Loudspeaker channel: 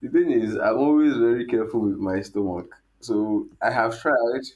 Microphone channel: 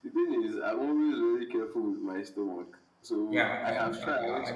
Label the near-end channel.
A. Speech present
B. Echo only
A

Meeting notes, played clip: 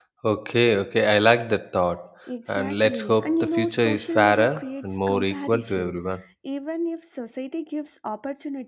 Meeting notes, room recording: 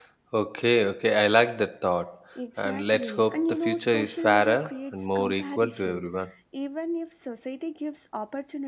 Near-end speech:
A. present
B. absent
B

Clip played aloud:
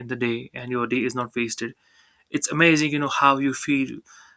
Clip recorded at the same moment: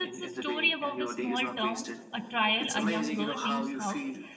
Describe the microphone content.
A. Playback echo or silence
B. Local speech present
B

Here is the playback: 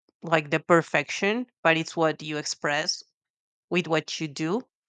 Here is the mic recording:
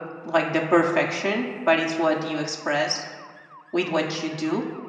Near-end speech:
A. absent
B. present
A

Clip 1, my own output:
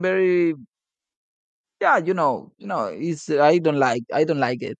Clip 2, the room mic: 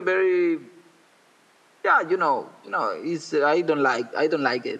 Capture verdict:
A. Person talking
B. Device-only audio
B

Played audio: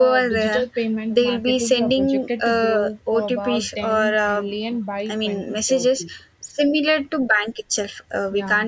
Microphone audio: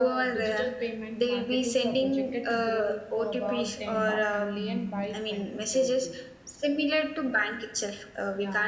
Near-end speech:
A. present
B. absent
A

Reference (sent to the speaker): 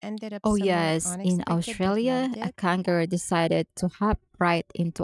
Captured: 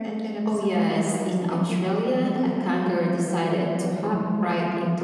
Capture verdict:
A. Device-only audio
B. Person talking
A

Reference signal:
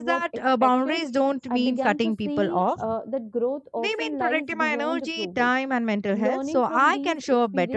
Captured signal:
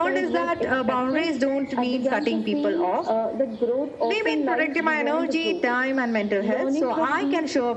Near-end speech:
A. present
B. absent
B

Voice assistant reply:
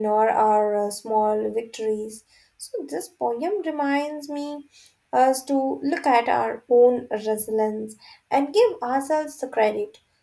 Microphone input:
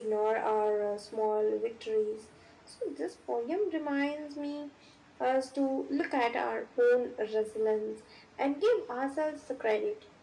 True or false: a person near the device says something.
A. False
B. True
A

